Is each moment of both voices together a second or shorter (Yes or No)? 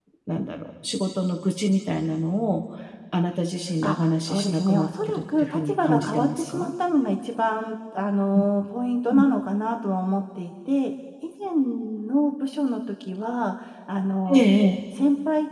No